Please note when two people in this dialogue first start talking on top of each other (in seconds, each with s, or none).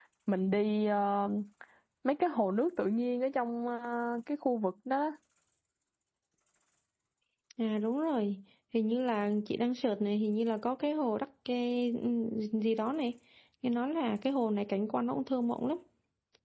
none